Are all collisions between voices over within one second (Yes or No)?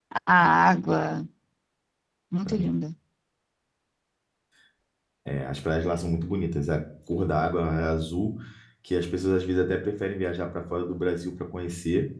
Yes